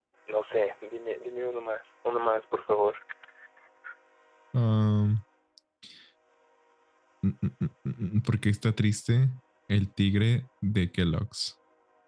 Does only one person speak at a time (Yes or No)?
Yes